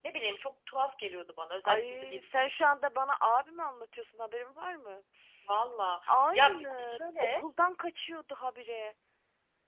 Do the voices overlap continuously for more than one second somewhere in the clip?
Yes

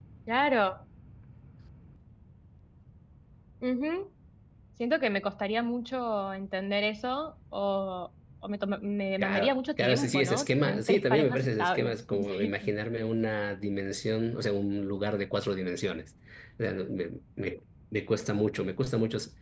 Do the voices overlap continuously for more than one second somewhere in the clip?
Yes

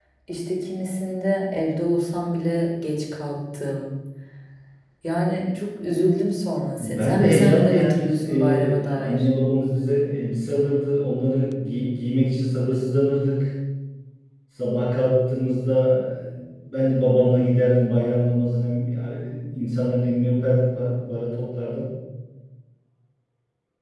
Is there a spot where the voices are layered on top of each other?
Yes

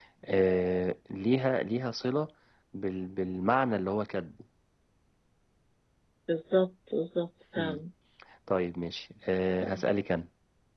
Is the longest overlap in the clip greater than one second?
No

